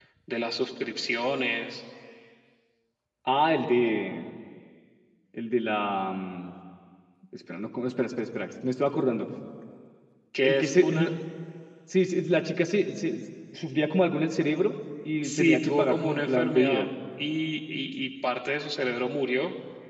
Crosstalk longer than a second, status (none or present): present